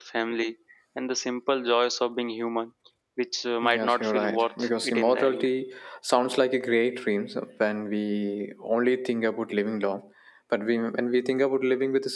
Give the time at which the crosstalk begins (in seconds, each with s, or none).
3.7 s